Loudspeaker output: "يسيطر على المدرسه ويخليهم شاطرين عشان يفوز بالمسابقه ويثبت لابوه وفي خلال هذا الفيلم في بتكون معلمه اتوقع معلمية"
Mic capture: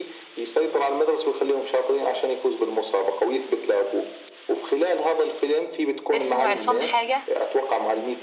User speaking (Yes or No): Yes